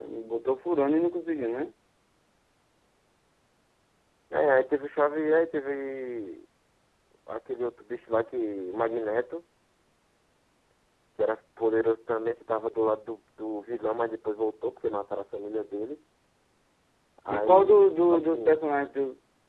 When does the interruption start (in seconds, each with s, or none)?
17.3 s